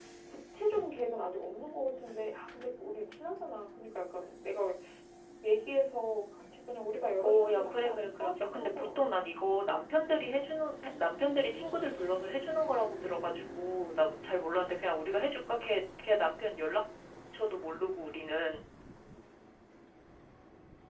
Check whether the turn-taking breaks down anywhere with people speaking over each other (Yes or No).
Yes